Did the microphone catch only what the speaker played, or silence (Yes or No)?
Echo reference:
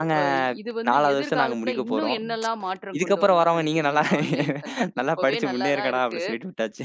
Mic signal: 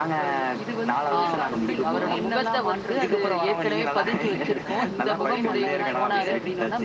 No